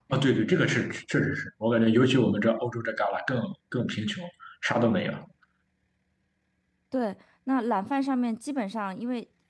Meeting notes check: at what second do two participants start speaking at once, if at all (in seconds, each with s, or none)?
none